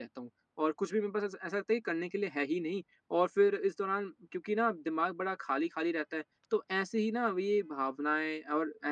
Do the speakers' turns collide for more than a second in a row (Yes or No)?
No